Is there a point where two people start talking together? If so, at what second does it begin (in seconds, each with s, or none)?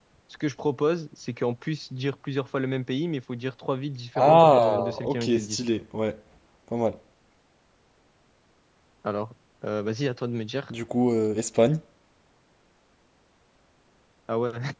4.2 s